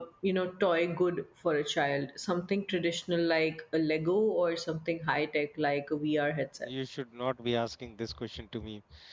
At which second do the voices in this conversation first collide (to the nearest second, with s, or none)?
none